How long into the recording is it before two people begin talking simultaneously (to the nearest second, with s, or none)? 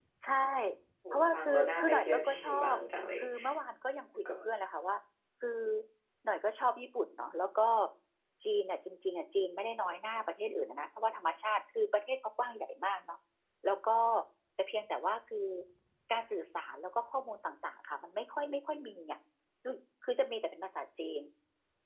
1 s